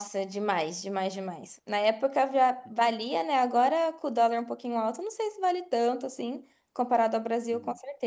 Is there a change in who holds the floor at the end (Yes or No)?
No